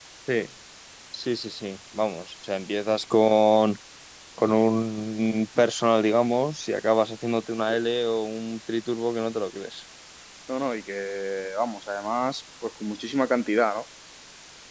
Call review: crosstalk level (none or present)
none